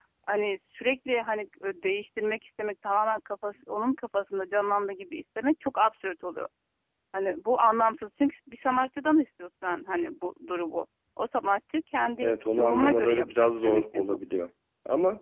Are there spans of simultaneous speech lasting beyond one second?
Yes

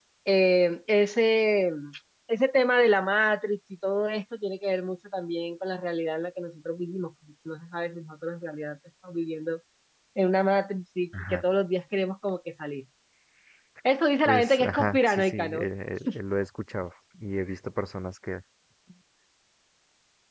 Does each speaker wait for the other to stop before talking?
No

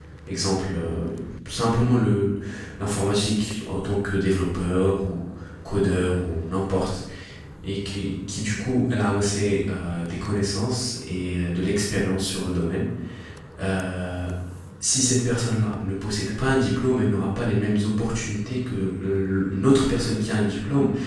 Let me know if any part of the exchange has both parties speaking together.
No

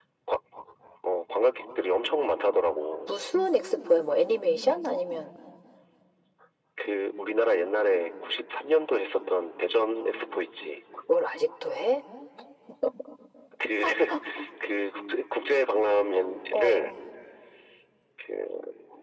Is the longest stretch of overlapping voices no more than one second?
Yes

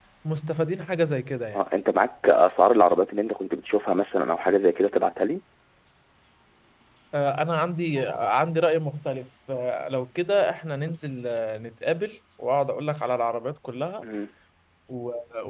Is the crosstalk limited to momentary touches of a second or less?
Yes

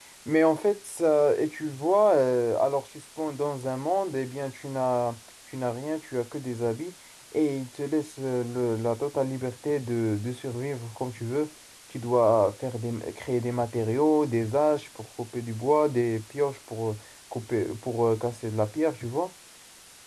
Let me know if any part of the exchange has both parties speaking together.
No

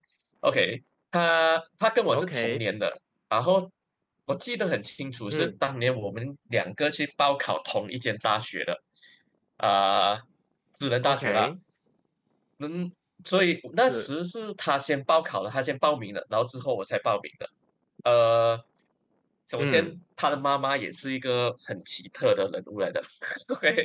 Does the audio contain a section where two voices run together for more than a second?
No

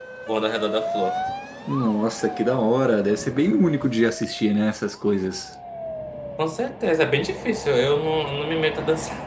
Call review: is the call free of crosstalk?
Yes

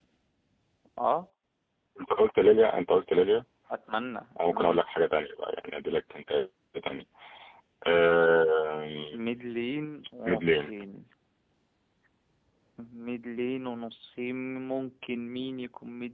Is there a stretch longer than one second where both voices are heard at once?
No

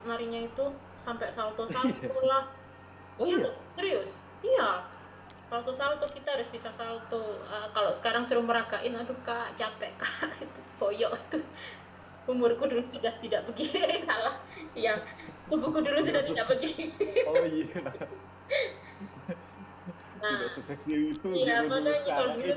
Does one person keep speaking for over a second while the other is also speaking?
Yes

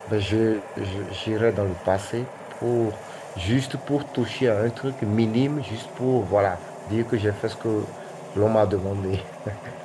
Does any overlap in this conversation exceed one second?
No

